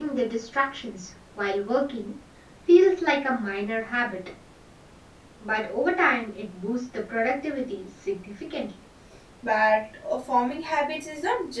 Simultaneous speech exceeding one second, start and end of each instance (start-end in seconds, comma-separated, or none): none